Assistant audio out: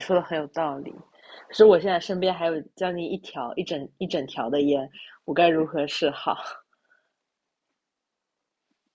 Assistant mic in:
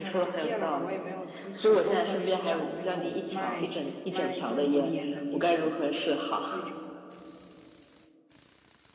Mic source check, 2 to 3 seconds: both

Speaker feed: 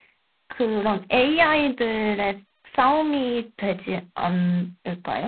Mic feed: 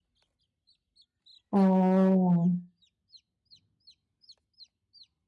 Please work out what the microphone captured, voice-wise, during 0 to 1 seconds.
neither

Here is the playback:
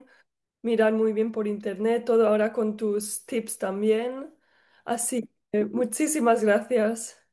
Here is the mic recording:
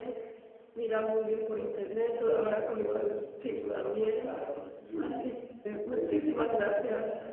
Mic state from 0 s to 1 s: echo only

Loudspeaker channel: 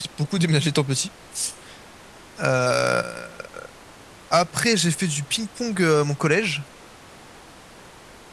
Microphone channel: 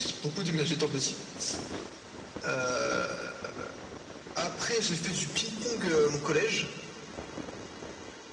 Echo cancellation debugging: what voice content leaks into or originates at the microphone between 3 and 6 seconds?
echo only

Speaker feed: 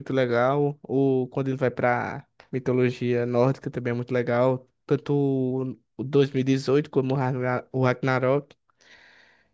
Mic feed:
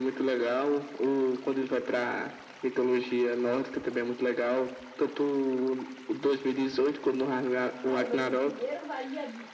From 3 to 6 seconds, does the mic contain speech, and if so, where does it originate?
echo only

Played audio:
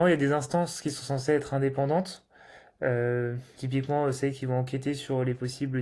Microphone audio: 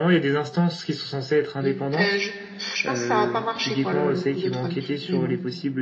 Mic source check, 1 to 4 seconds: both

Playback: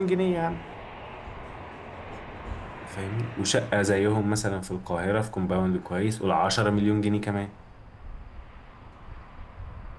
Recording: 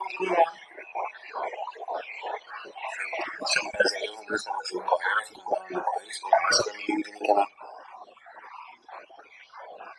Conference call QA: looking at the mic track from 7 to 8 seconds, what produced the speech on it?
echo only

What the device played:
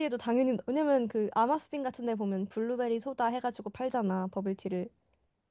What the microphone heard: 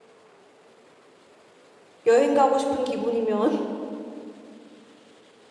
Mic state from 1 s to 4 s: user only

